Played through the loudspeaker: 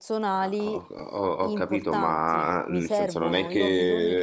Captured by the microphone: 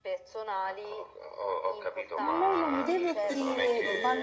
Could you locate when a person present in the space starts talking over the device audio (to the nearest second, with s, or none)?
2 s